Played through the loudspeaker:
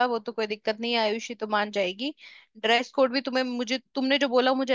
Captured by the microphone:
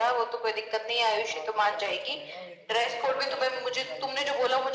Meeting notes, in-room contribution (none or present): present